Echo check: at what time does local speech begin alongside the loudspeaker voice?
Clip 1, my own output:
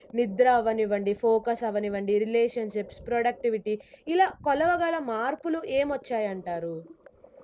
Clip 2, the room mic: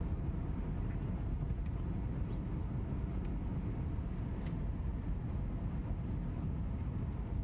none

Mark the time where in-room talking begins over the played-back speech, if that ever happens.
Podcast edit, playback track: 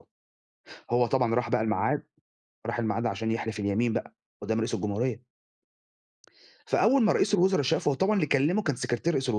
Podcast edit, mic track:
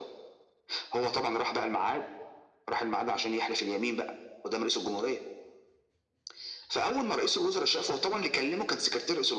none

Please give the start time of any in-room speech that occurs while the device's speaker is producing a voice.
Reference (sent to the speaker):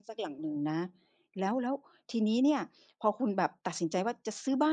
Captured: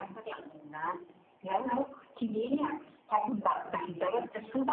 none

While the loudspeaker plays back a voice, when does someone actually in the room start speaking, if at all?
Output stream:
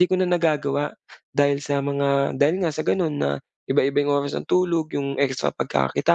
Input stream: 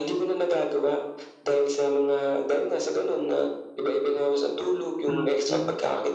5.1 s

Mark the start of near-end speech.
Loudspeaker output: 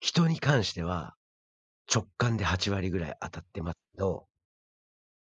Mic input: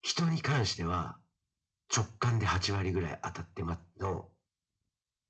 none

